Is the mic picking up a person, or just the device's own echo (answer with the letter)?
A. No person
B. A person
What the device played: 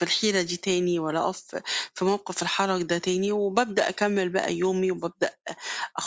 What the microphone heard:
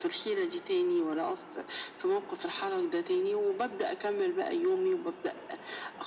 A